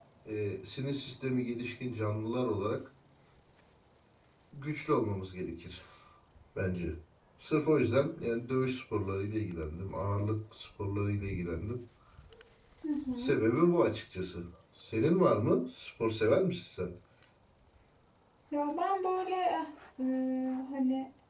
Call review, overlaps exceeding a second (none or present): none